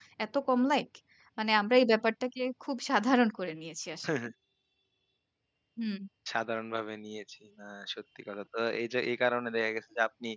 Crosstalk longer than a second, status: none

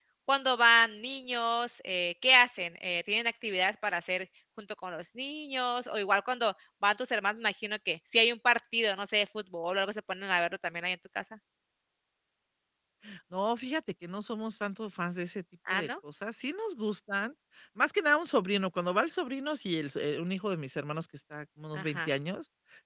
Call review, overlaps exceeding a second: none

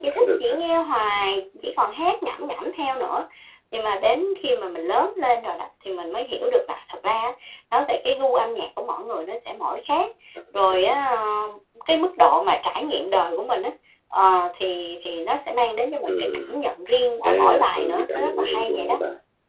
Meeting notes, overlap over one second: present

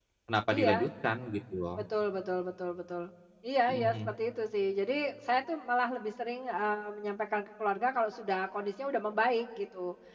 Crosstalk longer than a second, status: none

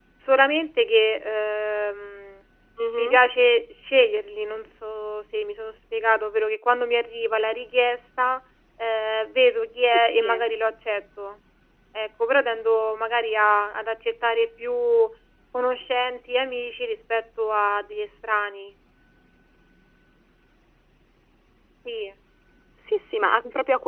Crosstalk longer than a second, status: none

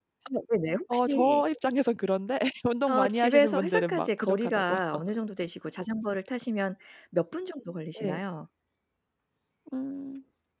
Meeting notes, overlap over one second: present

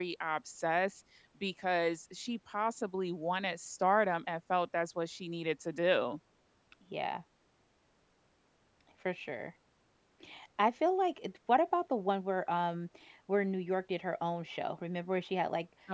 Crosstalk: none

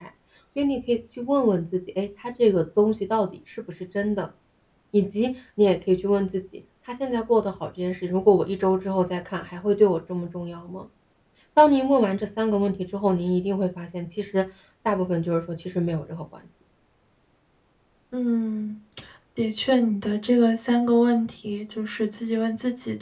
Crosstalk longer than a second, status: none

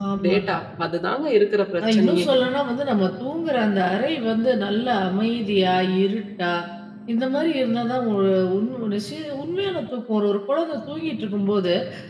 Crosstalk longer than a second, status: none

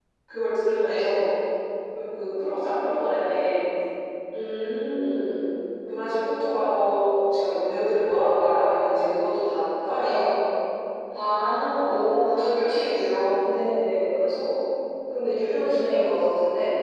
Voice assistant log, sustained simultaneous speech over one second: none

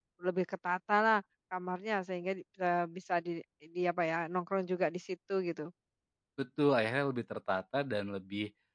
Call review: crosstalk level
none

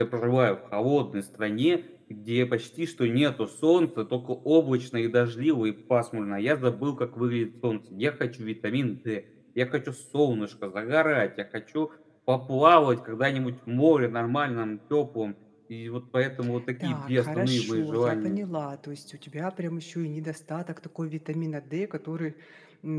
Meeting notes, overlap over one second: present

